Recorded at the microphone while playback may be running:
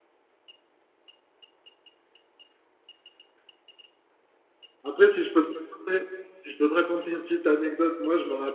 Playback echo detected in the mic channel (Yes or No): No